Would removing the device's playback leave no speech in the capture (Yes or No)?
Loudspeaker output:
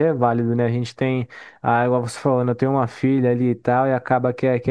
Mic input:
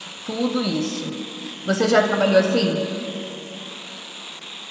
No